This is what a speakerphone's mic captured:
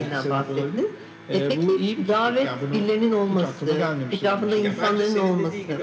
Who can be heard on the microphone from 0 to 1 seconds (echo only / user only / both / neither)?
echo only